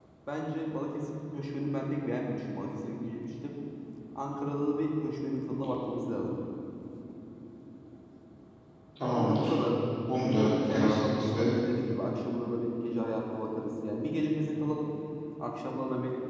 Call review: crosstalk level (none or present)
present